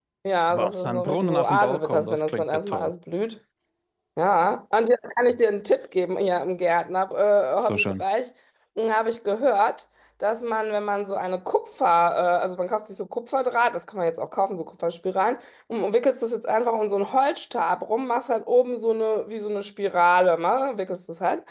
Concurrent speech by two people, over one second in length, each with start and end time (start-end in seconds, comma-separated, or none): 0.5-2.9